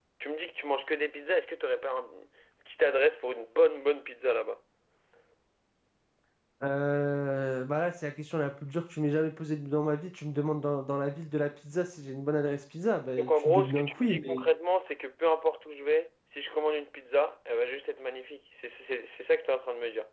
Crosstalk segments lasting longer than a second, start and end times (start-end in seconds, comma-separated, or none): 13.2-14.4